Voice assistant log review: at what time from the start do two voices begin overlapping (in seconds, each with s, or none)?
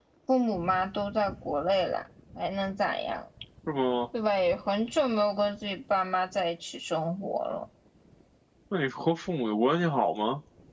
none